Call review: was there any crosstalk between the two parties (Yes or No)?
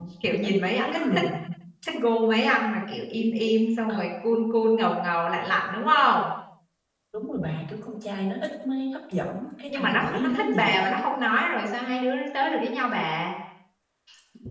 Yes